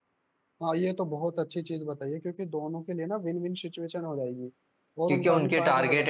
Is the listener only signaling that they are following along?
No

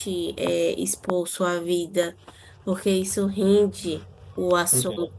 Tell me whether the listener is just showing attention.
Yes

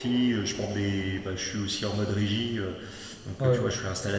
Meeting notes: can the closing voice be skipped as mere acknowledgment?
Yes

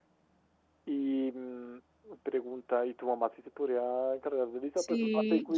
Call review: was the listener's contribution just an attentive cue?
No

